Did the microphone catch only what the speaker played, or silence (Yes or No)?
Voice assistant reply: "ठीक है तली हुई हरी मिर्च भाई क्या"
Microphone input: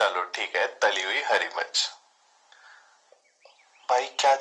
Yes